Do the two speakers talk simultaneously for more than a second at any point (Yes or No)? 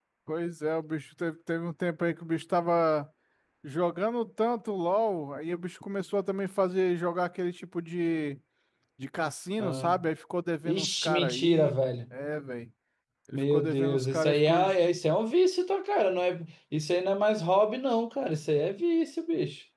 Yes